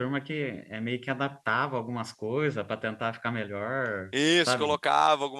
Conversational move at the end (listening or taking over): taking over